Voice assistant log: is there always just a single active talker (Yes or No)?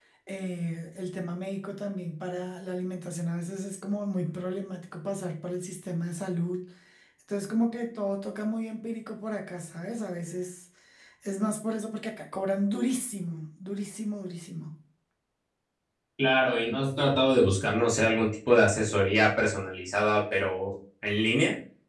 Yes